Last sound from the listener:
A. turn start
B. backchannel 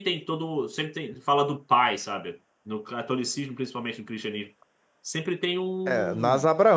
A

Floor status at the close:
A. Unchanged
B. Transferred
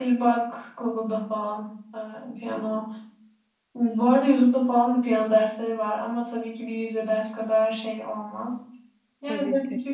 A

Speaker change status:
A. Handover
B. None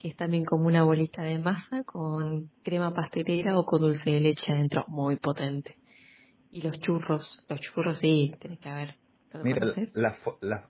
A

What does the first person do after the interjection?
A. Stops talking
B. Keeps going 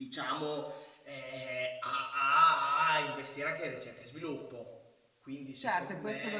A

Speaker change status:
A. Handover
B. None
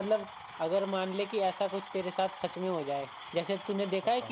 B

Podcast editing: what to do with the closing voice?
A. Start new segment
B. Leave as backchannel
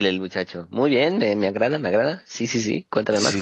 A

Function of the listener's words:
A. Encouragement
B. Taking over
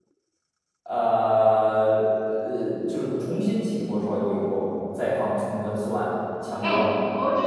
B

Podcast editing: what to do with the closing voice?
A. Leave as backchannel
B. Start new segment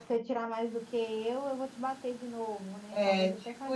B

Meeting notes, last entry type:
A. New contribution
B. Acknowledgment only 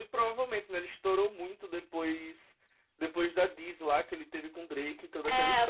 A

